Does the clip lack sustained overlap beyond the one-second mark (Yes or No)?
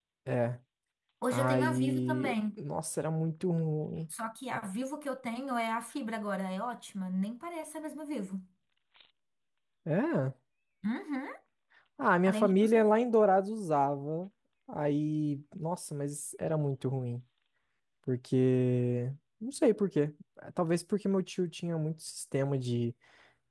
No